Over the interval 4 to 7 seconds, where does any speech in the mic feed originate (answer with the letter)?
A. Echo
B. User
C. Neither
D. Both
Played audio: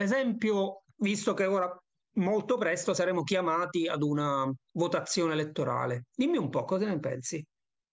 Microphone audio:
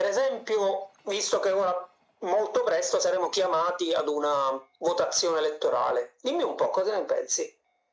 A